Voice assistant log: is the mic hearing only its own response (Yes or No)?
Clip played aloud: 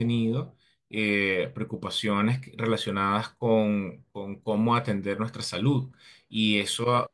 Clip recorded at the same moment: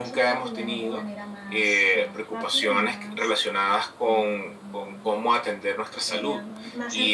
No